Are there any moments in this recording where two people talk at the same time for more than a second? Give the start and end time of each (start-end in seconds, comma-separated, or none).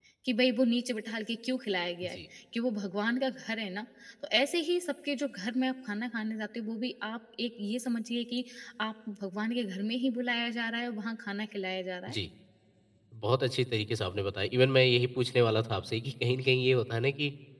none